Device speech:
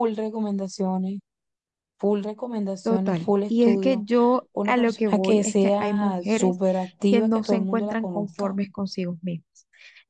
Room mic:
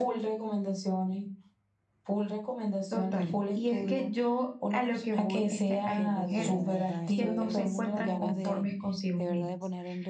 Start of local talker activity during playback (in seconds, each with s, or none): 5.9 s